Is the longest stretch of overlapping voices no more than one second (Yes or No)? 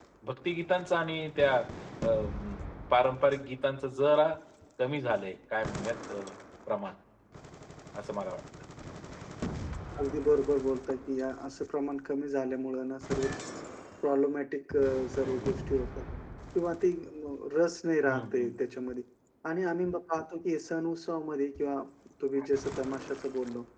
Yes